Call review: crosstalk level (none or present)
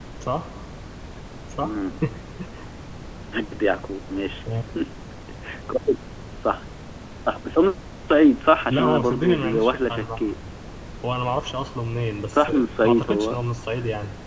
present